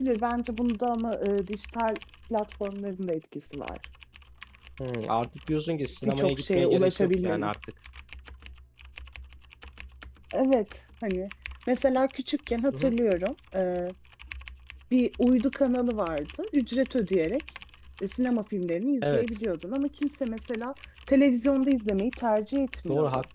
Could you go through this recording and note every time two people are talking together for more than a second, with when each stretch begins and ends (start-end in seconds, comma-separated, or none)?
6.0-7.5